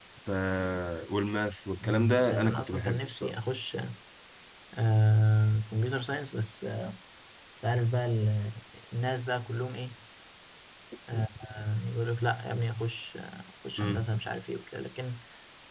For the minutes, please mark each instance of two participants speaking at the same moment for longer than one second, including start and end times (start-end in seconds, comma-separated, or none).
1.8-3.3